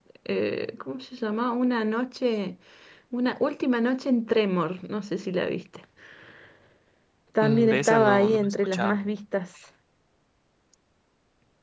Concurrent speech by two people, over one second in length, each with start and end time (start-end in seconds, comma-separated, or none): 7.4-9.0